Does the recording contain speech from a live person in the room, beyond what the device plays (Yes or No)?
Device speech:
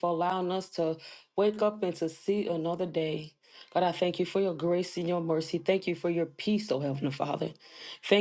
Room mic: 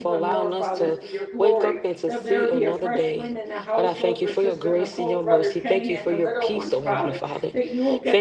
Yes